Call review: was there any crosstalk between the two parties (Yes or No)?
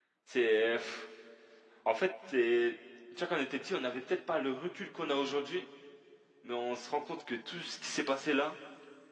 No